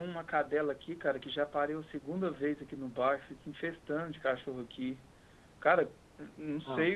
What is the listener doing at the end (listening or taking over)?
listening